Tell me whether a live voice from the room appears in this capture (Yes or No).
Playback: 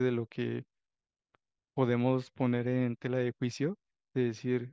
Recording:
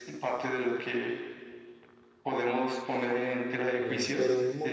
Yes